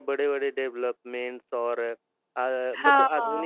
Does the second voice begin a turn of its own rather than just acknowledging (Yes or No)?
No